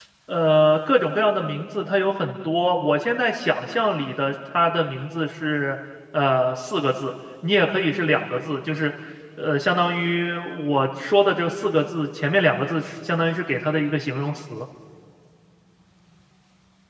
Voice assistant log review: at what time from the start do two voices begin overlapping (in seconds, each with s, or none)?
none